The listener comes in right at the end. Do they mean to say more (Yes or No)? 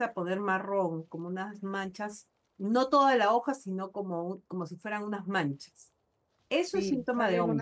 Yes